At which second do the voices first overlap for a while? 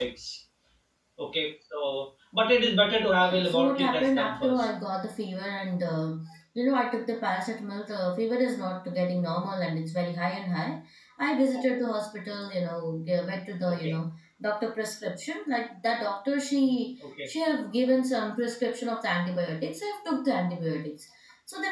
3.2 s

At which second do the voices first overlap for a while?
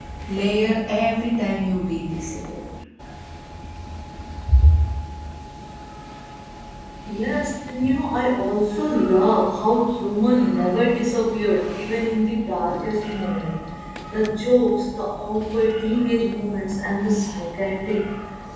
none

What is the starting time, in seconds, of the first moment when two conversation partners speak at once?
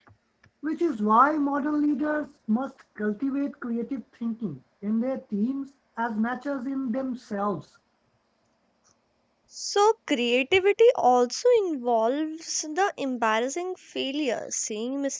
none

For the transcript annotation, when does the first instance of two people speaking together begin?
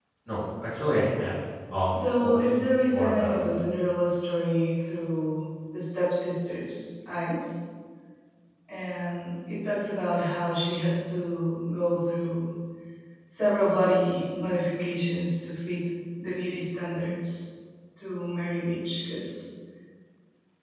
1.9 s

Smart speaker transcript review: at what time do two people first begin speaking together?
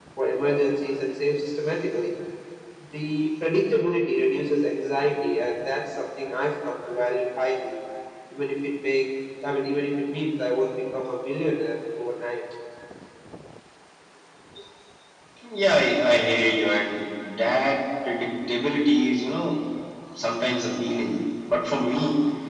none

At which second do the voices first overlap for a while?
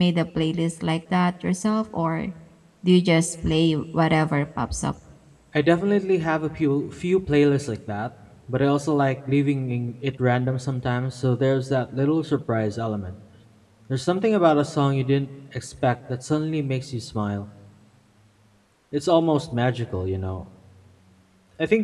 none

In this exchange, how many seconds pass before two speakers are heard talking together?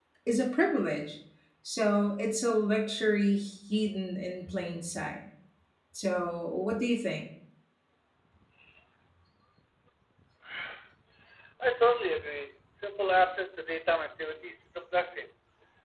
none

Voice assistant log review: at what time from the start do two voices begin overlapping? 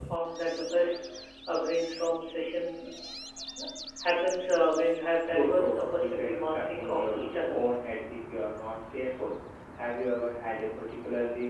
5.2 s

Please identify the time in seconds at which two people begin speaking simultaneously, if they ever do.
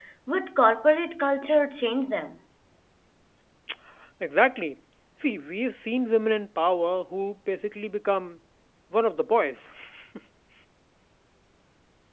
none

